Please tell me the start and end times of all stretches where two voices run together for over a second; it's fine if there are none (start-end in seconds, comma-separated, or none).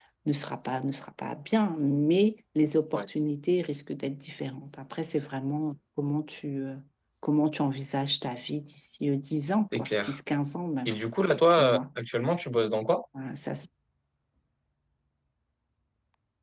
none